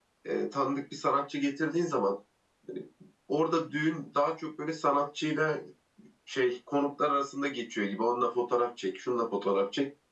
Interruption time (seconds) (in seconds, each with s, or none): none